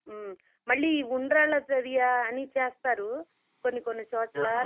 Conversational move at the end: listening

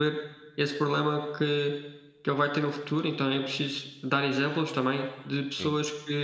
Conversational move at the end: listening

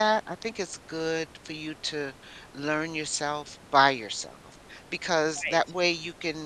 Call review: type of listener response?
listening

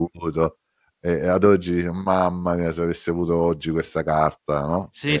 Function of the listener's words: taking over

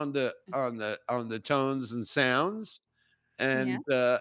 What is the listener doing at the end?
listening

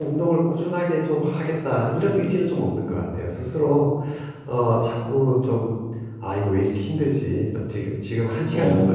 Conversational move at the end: listening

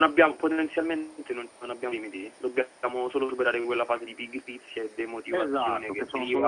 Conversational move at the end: taking over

